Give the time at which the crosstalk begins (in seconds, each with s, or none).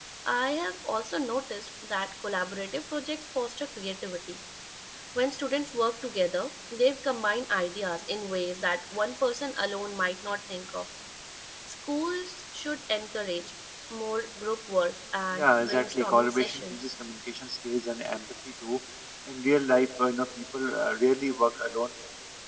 15.3 s